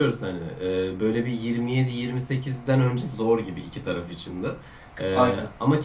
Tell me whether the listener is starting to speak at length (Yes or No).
No